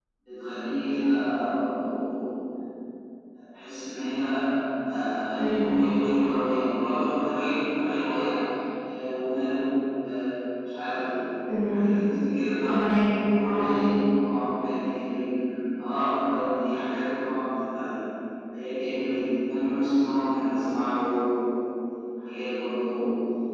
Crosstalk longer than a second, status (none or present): none